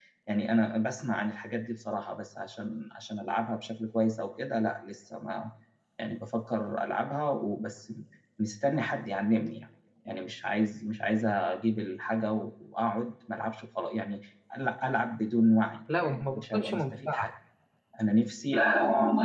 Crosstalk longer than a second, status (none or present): present